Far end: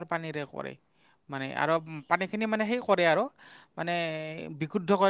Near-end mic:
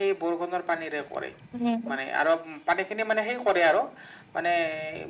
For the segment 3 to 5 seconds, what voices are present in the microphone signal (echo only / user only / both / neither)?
echo only